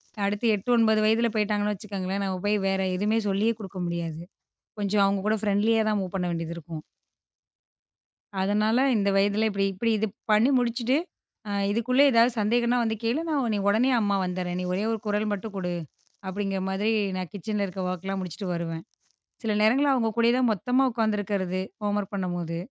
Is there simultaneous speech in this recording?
No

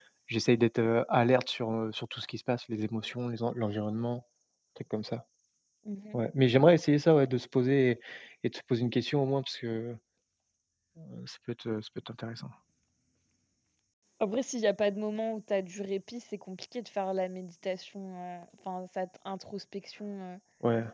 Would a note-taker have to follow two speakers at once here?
No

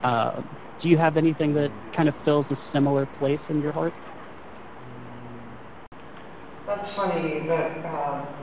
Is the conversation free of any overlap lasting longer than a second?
Yes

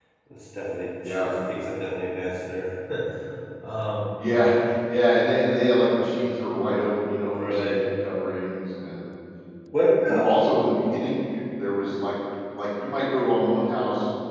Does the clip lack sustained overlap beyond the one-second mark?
Yes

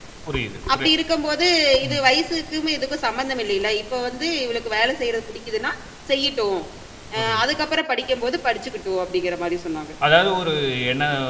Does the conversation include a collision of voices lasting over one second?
No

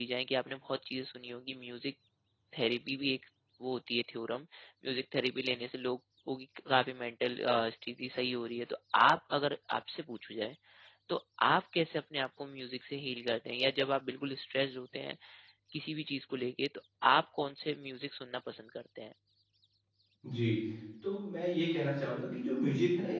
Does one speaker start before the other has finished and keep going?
No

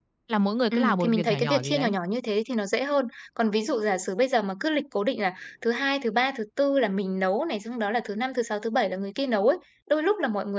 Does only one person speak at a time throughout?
No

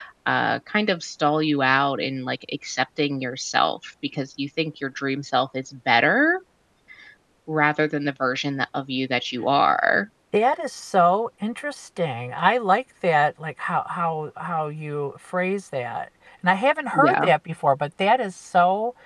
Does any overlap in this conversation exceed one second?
No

